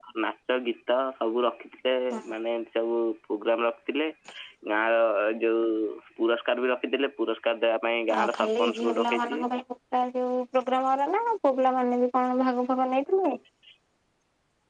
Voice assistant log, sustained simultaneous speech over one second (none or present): present